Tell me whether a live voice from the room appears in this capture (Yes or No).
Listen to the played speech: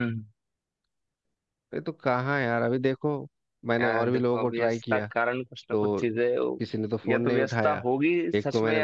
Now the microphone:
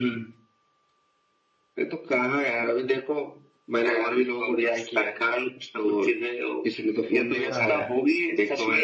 Yes